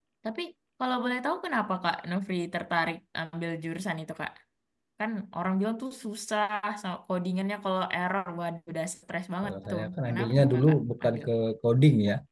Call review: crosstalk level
present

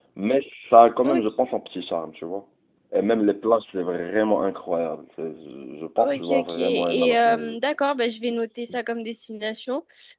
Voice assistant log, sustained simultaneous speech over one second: present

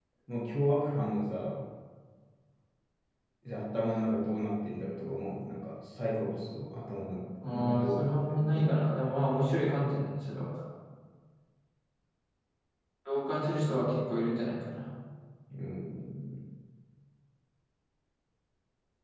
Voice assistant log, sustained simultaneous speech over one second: present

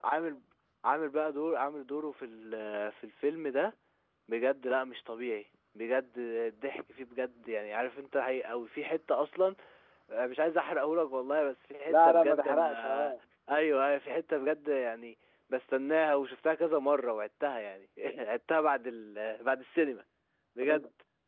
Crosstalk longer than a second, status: present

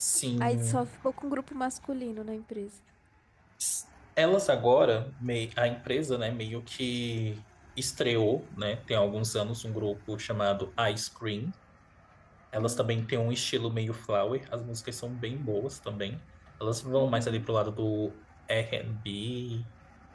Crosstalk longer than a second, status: none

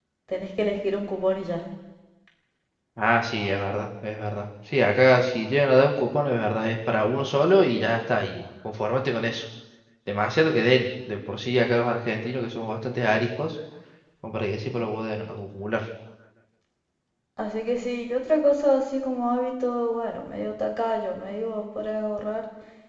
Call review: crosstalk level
none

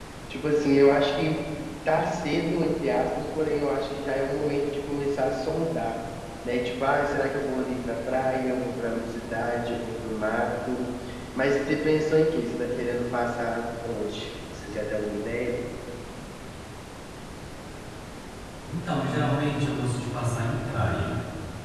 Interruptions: none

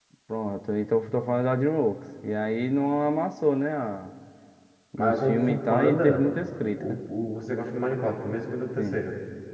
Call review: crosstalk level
present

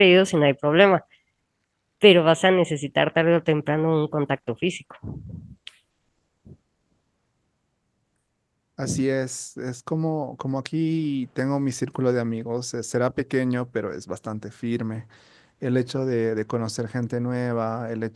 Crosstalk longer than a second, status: none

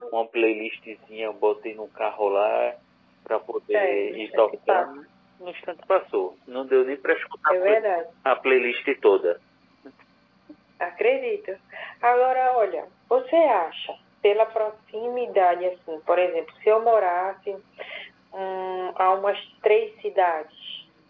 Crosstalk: present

